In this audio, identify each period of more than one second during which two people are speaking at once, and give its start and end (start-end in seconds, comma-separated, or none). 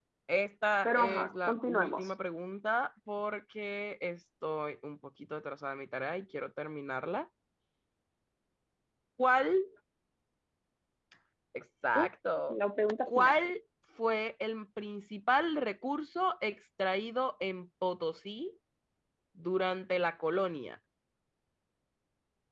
0.8-2.1